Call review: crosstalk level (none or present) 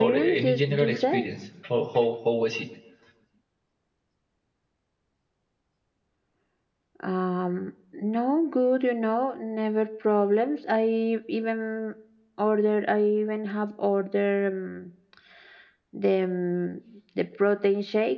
present